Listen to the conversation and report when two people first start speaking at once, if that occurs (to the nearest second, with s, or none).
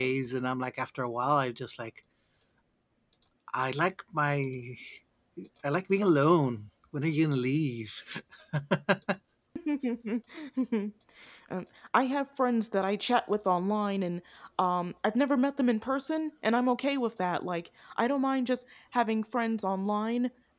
none